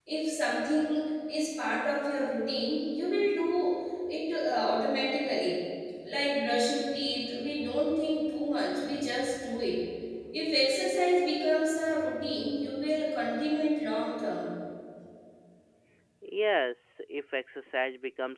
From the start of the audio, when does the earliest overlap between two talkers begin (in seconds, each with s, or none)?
none